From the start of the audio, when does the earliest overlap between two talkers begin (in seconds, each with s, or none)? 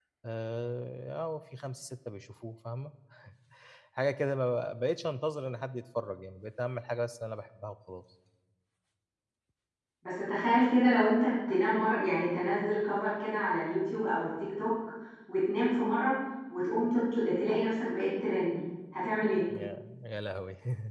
none